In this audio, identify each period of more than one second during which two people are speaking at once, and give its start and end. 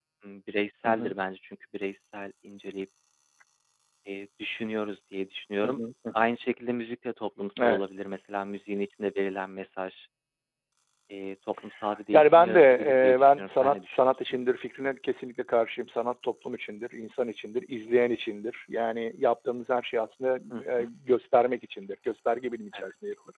12.1-14.4

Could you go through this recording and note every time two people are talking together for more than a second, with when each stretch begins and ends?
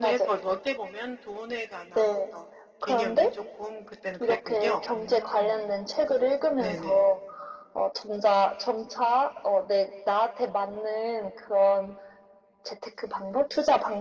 4.2-5.7

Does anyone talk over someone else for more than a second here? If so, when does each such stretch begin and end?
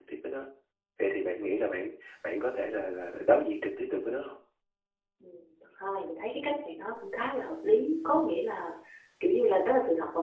none

